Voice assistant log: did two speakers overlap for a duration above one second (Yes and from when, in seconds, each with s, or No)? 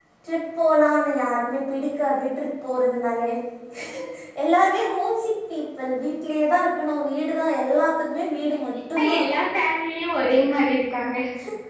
No